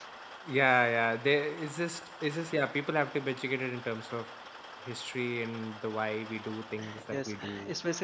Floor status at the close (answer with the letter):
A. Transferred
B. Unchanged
A